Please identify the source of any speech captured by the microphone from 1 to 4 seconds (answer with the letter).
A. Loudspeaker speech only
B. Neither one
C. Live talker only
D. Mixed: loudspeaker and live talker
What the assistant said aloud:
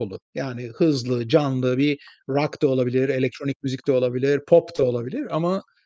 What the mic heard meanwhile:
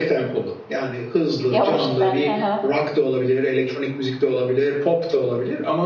D